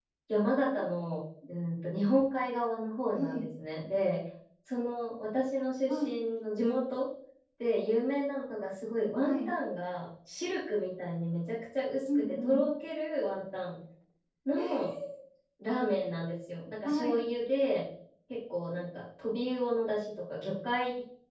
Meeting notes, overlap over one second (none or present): none